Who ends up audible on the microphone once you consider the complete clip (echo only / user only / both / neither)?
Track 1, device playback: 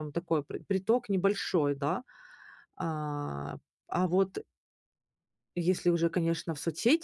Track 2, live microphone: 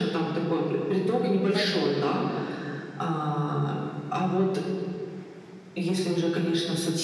both